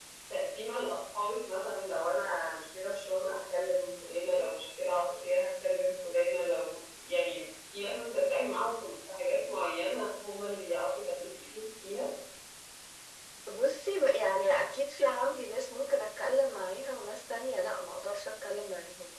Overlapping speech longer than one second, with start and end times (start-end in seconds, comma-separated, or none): none